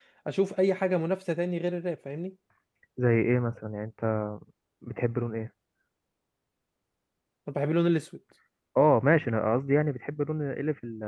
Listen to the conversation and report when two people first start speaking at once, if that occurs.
none

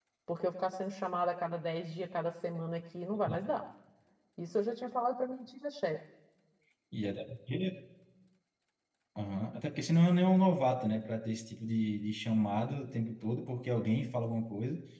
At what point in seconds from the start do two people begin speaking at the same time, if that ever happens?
none

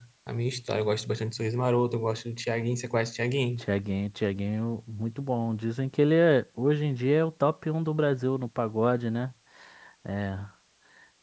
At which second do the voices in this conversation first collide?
none

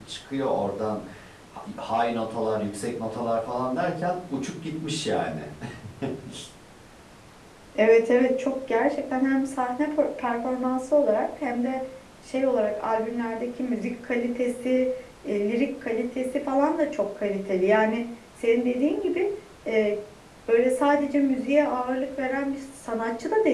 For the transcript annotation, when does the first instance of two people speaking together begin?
none

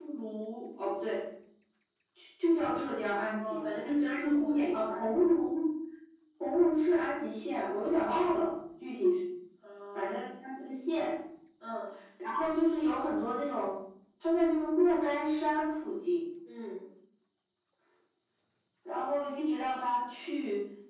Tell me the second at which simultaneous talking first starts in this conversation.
3.3 s

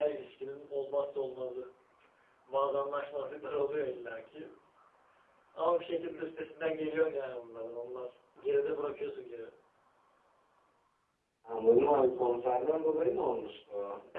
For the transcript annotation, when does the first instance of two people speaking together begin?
none

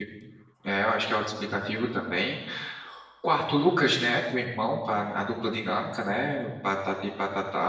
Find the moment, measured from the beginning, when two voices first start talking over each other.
none

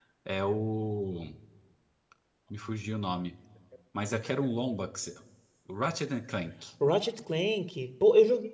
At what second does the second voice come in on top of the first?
none

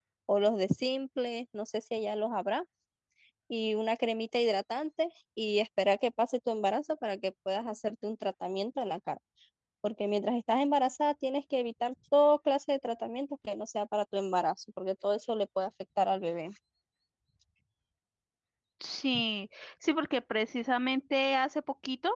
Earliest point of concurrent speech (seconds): none

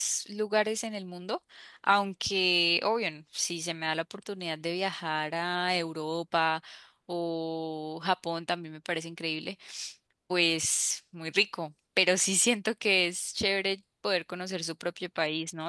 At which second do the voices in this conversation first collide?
none

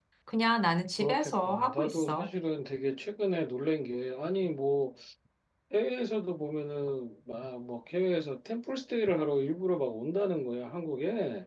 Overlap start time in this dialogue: 1.0 s

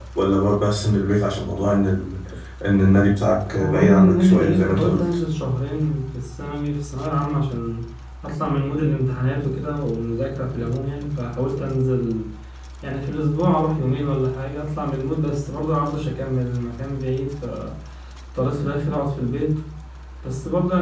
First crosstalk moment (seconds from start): 3.5 s

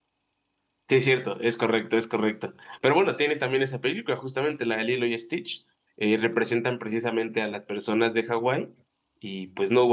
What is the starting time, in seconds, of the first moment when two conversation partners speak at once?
none

